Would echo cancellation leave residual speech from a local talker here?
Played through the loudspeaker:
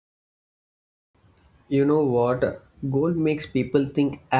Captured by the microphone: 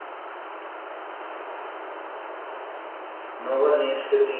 Yes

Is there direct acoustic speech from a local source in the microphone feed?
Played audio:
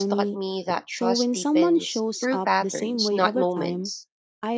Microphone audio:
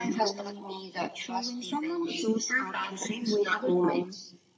No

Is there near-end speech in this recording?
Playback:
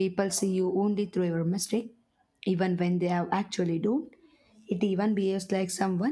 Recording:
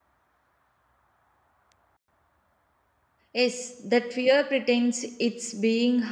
Yes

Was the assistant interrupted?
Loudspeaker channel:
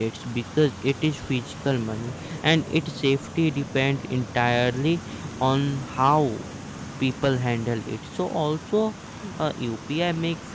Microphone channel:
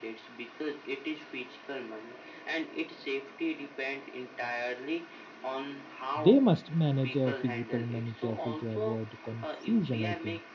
Yes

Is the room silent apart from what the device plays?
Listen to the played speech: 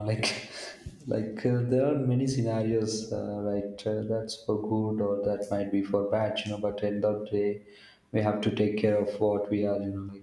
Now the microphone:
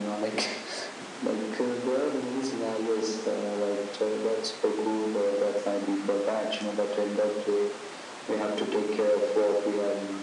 Yes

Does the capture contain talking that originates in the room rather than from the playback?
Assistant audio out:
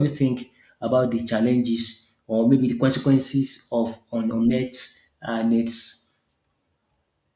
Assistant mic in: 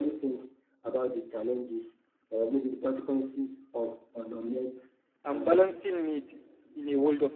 Yes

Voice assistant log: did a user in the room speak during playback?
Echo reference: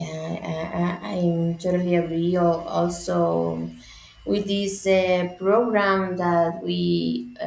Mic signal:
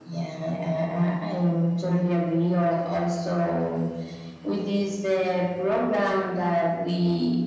No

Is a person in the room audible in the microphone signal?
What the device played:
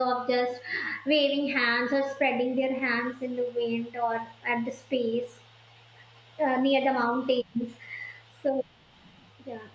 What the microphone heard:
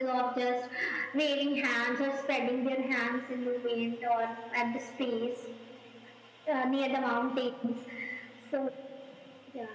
No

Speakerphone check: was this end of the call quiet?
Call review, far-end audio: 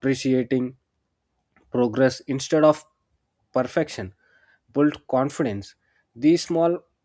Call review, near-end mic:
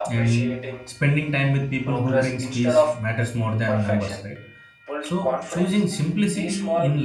No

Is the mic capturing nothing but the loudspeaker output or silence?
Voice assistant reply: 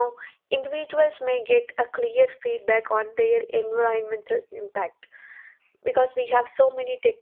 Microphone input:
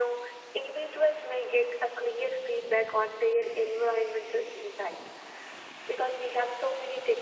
Yes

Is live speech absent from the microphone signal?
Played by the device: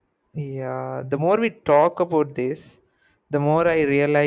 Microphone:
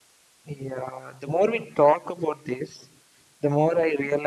Yes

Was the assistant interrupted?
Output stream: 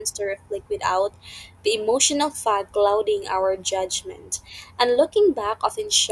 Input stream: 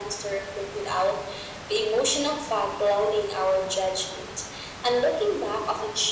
No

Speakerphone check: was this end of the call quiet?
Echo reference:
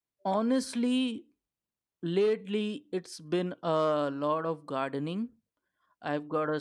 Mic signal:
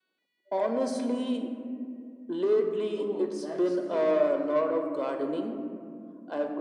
No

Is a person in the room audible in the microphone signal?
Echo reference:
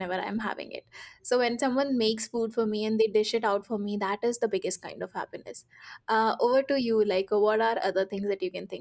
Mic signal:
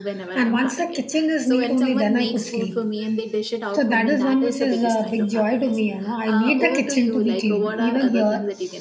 Yes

